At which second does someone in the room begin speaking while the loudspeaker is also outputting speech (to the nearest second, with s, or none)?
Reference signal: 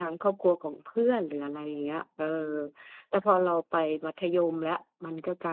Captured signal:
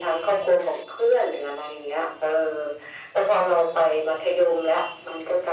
none